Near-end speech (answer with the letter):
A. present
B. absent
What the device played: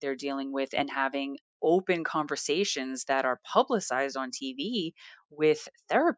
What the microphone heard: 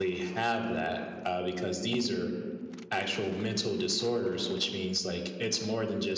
A